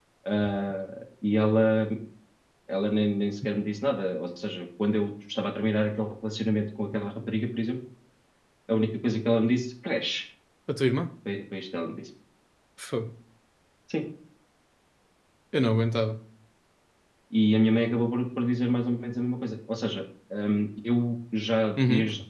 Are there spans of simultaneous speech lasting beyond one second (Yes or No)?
No